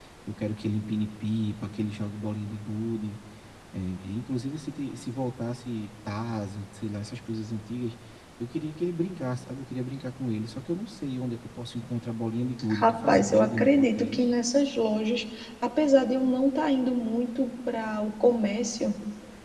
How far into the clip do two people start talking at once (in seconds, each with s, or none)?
12.7 s